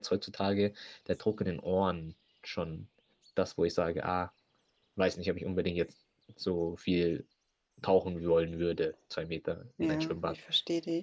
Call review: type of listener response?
taking over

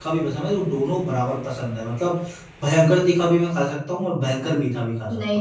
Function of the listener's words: taking over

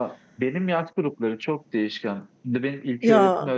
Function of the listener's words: listening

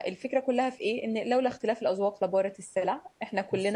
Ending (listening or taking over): taking over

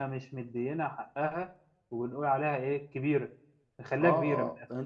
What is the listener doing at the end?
taking over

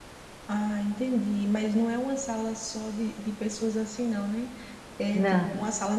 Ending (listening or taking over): listening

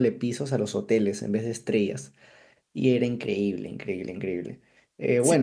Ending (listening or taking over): taking over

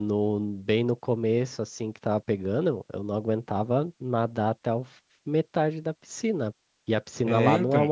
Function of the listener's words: listening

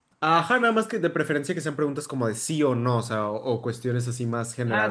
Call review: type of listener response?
taking over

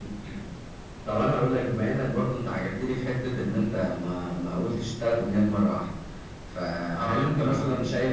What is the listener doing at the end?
listening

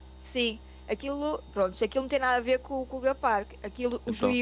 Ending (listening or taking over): listening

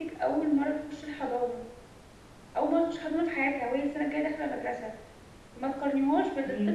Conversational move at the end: listening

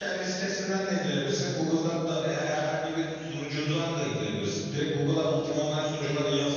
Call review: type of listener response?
listening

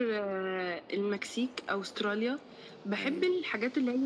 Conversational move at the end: listening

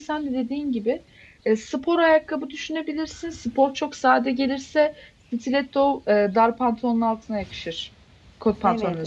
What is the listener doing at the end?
taking over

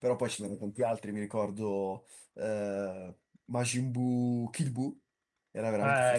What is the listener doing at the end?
taking over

